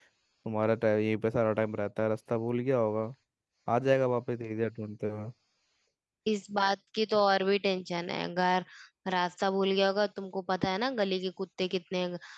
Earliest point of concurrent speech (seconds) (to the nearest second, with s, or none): none